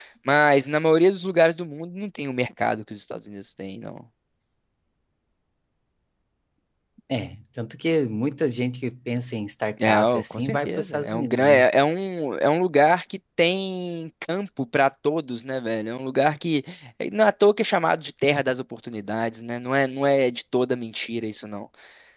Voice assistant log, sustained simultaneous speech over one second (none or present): present